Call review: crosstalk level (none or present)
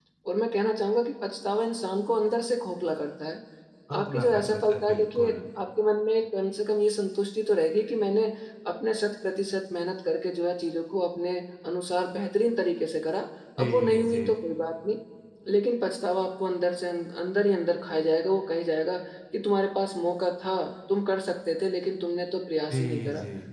present